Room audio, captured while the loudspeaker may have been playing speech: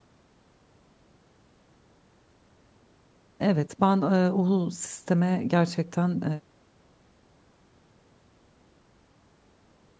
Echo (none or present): none